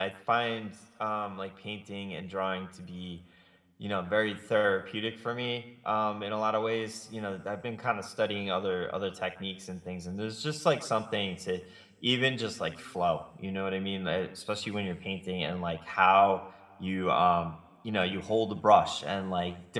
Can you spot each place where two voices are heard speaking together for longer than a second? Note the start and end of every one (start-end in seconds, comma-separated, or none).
none